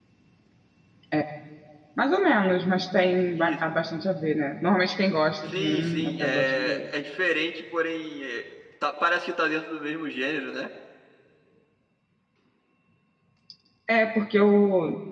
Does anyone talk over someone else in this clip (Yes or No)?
Yes